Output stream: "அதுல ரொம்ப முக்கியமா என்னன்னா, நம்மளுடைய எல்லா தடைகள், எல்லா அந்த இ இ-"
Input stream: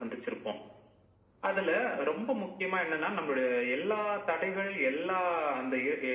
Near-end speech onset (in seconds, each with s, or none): none